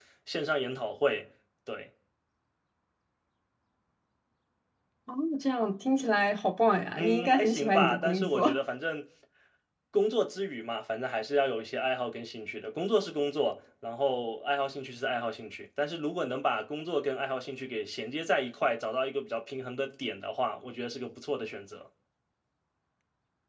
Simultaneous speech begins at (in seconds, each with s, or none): 7.0 s